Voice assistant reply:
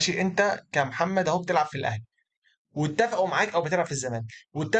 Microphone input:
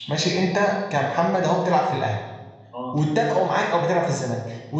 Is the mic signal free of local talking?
No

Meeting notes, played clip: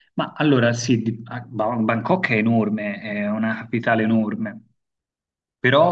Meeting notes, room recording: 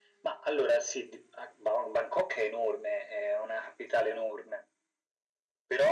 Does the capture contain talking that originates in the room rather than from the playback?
No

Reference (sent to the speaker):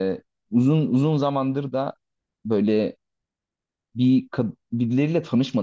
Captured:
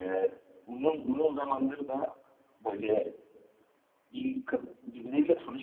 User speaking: No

